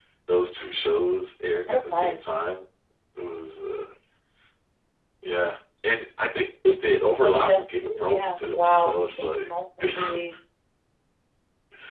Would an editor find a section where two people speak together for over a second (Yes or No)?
Yes